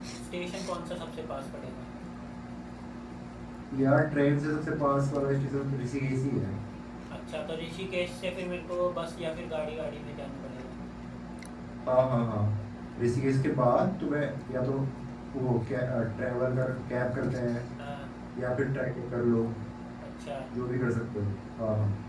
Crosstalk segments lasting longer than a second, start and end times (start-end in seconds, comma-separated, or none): none